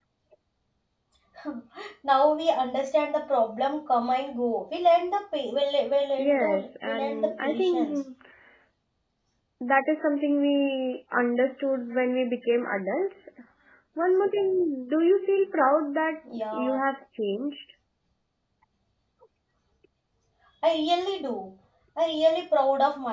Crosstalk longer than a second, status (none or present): present